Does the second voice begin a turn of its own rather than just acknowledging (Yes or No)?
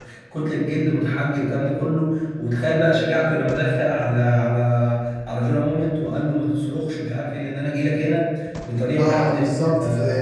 Yes